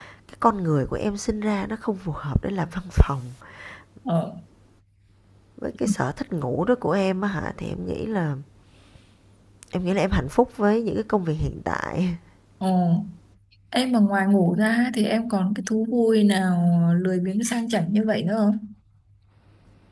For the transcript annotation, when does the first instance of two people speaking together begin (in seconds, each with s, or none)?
none